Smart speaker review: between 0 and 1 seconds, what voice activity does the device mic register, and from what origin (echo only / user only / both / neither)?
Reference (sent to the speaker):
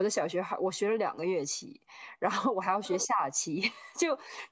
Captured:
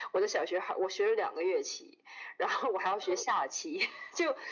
echo only